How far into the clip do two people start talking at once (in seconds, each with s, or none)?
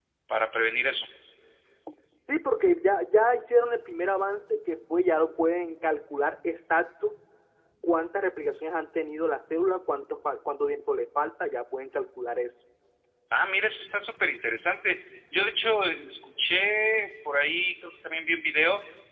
none